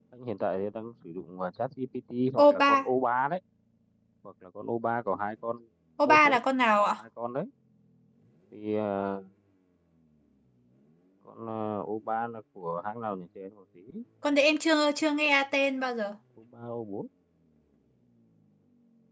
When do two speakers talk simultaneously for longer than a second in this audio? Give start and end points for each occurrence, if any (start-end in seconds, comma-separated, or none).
none